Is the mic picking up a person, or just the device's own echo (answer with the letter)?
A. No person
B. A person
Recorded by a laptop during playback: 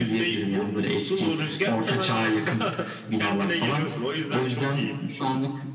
A